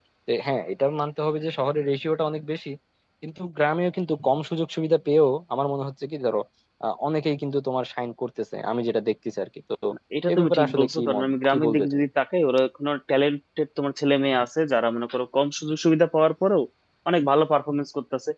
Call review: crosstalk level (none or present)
present